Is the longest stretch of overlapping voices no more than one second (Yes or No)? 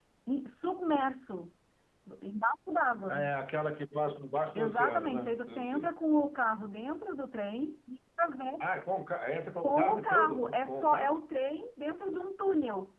No